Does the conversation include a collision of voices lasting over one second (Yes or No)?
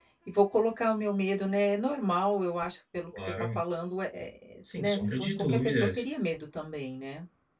Yes